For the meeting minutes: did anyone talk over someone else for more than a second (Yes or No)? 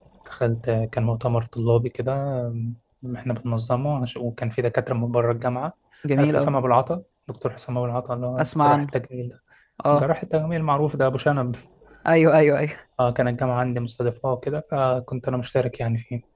No